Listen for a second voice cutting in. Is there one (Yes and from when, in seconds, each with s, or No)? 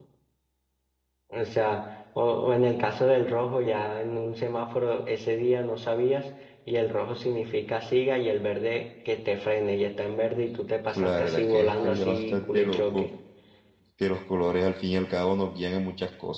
Yes, from 10.9 s